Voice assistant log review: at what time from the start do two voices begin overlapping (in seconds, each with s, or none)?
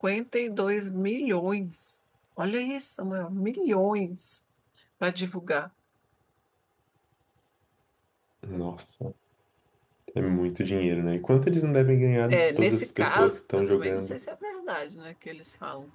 12.3 s